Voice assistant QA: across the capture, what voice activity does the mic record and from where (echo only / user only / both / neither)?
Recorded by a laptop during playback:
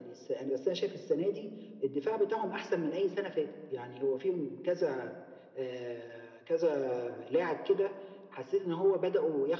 echo only